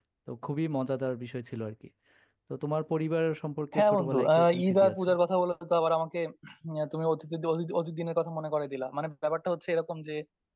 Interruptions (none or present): present